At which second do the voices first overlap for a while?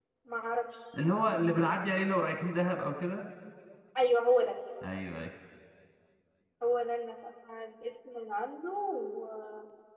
none

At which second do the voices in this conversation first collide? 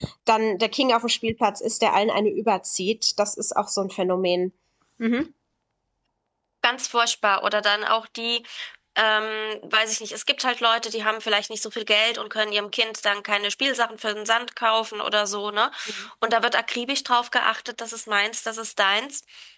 none

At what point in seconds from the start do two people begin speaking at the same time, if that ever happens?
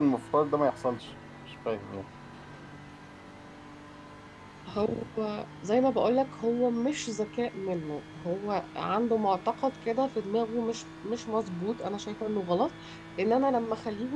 none

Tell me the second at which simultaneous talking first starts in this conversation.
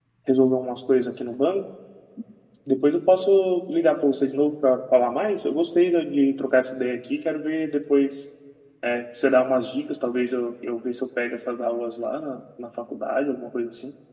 none

